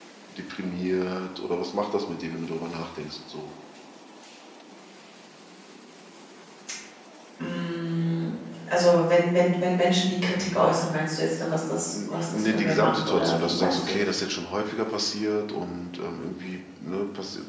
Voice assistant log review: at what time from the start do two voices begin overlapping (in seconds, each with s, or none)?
11.8 s